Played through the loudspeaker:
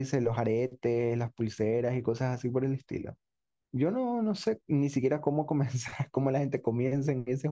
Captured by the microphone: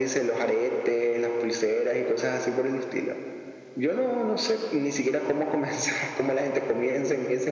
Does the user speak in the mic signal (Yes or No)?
No